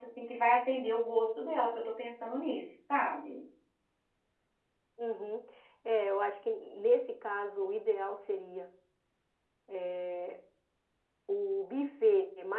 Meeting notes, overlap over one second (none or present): none